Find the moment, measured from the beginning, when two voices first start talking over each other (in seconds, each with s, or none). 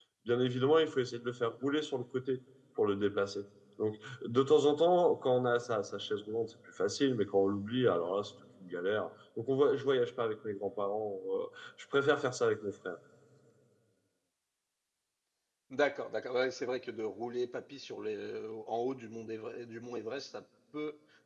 none